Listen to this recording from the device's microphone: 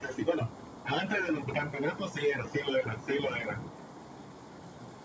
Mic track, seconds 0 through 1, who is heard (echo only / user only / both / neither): echo only